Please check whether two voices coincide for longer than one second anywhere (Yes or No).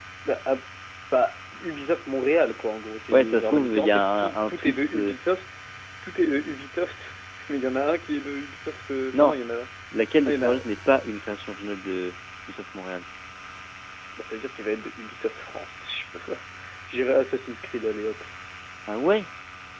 Yes